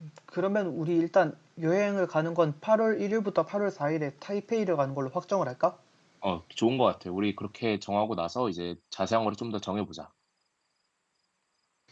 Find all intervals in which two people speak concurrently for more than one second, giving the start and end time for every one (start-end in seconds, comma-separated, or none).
none